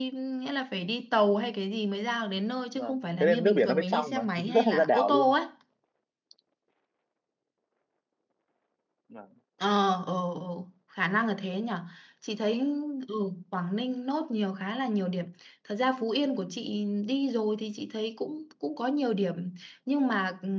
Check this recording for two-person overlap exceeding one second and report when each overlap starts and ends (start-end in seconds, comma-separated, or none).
2.8-5.3